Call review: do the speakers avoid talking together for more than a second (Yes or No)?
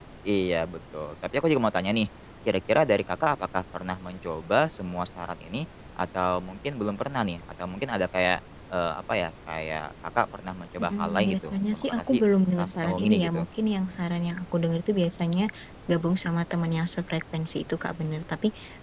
No